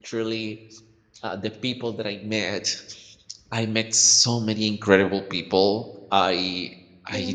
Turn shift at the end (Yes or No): No